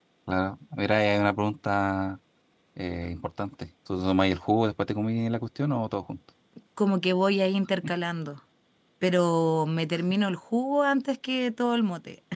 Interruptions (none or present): none